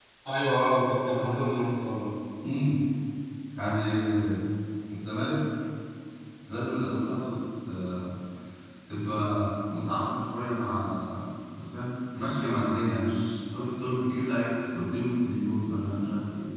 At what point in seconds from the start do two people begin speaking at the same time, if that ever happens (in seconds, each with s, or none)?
none